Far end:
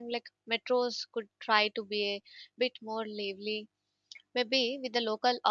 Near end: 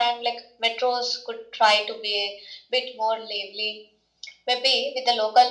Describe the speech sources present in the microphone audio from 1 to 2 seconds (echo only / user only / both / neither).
echo only